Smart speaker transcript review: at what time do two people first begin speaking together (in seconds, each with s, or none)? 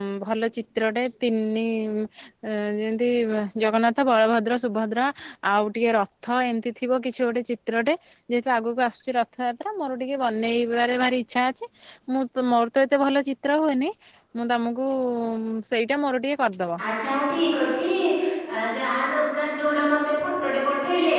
none